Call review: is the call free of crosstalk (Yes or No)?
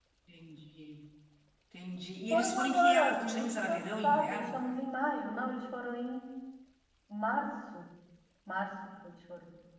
No